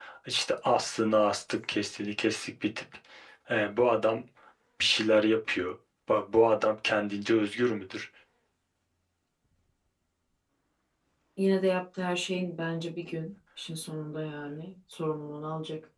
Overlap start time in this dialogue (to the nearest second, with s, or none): none